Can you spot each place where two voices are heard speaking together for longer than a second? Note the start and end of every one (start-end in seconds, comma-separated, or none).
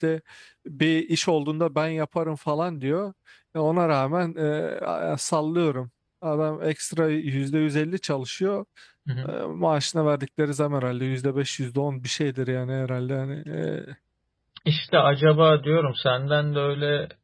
none